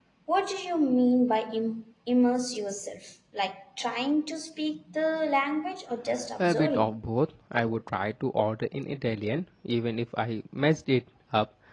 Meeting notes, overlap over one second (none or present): none